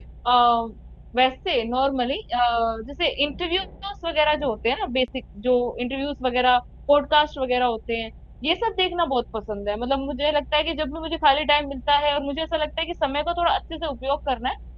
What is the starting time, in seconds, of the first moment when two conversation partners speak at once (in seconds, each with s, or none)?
none